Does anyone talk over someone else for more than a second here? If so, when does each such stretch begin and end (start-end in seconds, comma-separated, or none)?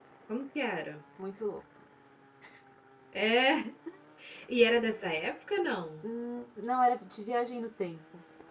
none